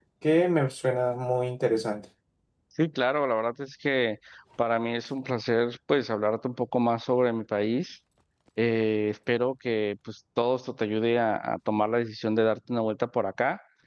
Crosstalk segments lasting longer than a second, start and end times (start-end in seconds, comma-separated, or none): none